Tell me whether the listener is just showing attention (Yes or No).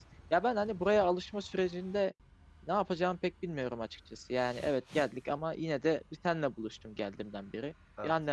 Yes